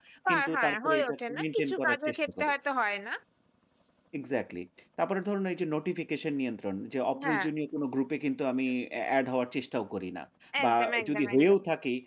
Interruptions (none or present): present